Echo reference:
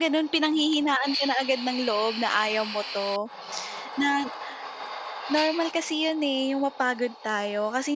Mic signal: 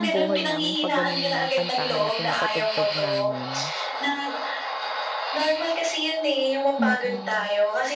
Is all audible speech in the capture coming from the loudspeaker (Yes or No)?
No